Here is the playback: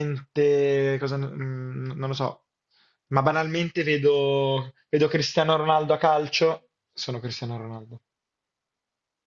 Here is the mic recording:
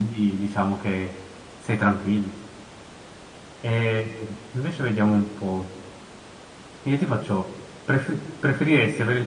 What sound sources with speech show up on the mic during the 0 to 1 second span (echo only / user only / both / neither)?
user only